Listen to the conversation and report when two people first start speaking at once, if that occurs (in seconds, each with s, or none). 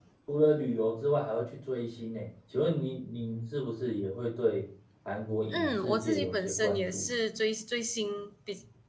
5.5 s